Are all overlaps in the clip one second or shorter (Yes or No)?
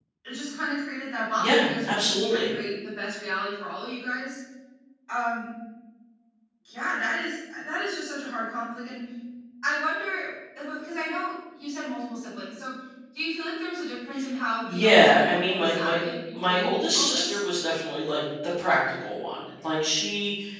No